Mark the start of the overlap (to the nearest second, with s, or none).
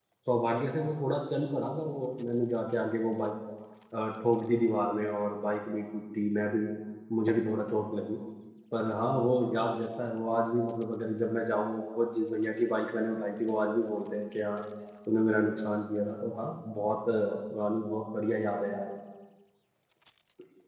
none